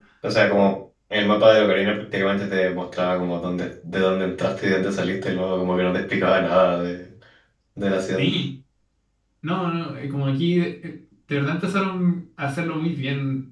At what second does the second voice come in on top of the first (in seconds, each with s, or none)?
none